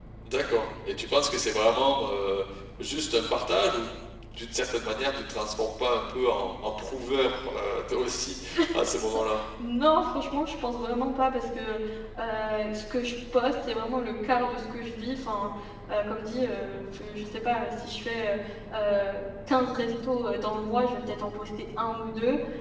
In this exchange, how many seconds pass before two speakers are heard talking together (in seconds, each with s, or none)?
none